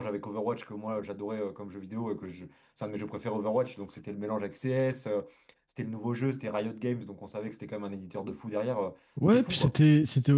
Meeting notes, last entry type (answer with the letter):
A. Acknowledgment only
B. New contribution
B